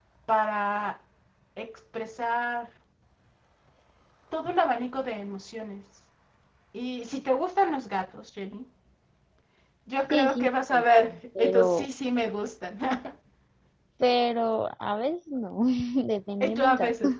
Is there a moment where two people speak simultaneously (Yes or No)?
Yes